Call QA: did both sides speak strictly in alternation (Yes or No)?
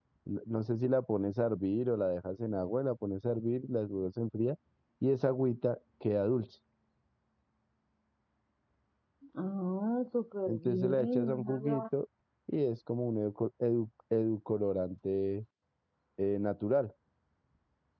No